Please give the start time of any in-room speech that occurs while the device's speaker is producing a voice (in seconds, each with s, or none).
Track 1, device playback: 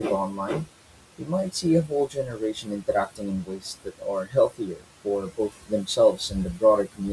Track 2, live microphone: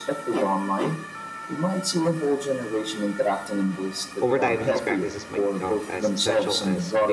4.2 s